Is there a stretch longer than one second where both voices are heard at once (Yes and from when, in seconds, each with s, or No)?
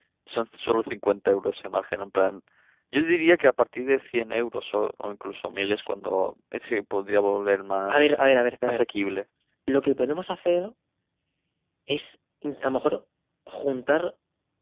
No